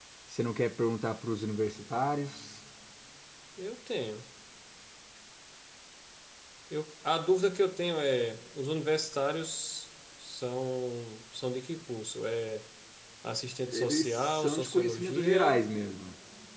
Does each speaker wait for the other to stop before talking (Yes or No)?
No